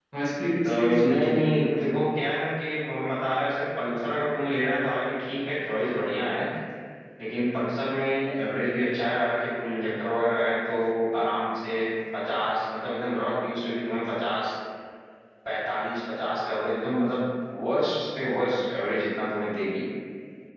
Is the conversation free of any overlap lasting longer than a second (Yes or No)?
No